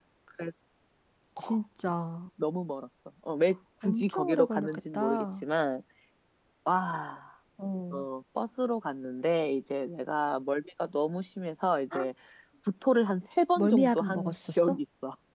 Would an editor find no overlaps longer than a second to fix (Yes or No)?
No